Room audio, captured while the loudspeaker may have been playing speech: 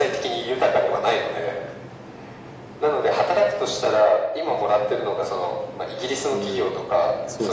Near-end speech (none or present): present